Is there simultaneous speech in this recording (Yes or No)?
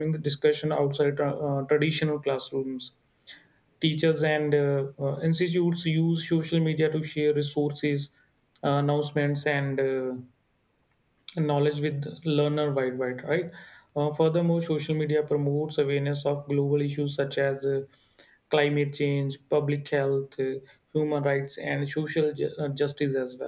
No